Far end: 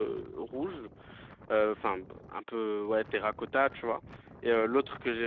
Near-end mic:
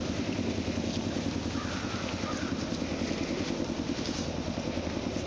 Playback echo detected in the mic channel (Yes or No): No